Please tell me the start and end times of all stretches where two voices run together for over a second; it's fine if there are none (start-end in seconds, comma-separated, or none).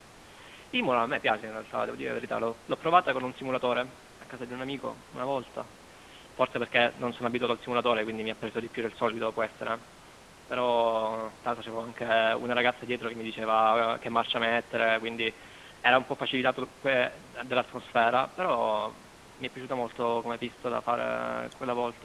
none